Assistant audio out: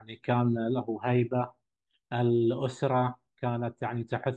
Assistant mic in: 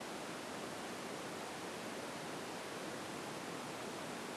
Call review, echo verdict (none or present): none